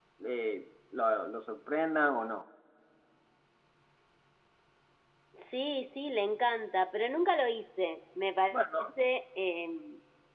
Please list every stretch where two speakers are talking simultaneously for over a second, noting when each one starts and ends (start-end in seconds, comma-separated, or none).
none